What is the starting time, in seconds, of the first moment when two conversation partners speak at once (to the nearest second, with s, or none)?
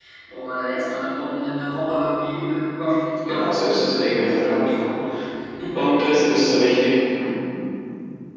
3 s